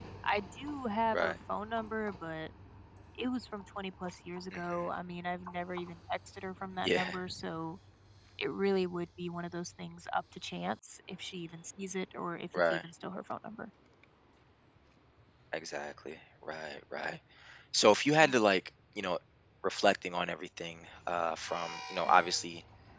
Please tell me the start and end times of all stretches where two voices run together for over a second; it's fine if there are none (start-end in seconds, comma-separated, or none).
none